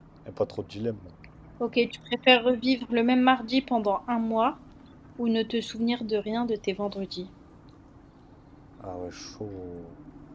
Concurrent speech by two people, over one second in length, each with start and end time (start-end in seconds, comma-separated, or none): none